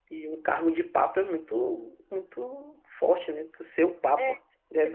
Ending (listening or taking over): taking over